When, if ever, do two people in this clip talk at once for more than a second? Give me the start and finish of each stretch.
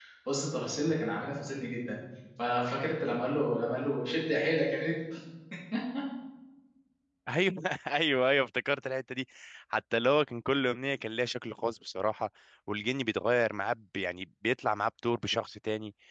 none

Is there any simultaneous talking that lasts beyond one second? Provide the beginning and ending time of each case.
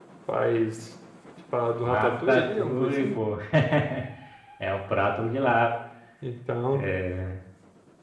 1.9-3.1

